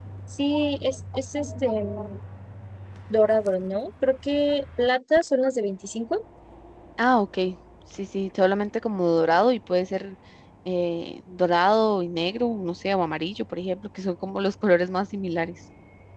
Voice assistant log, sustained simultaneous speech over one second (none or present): none